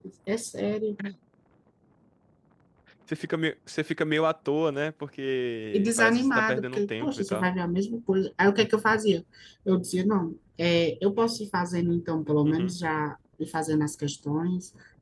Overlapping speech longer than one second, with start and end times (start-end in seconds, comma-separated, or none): 5.7-7.5